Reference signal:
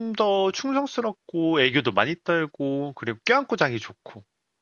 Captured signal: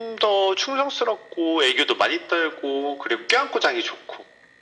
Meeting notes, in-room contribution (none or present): none